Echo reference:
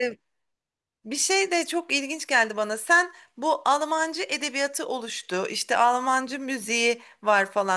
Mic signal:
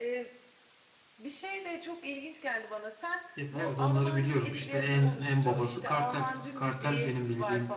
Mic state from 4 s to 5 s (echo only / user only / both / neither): both